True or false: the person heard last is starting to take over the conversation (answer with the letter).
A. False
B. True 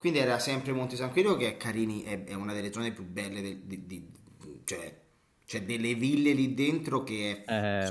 B